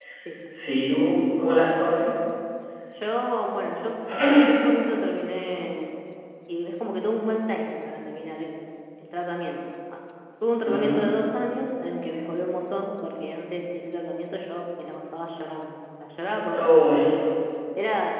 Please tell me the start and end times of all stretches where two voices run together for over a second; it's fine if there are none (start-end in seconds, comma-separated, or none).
none